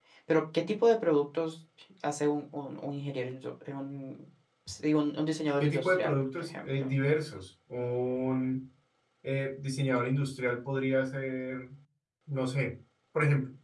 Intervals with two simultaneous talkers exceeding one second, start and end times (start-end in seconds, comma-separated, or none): 5.6-6.9